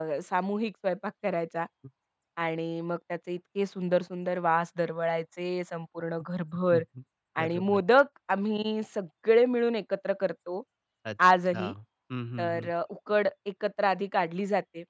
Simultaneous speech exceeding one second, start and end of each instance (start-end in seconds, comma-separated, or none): none